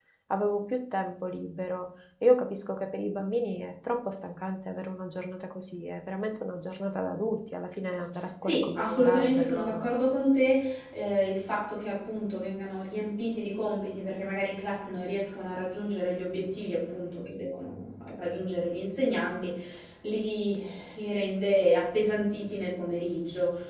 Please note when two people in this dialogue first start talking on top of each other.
8 s

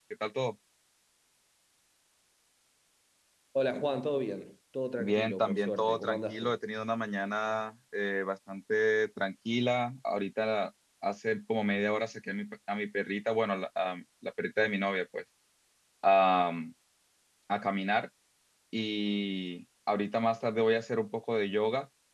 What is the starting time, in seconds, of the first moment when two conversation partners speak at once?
5 s

